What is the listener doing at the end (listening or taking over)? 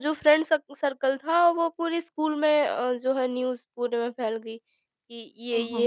listening